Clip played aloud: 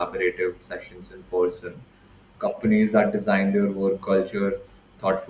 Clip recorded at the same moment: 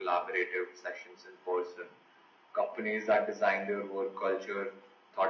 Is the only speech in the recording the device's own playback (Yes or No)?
Yes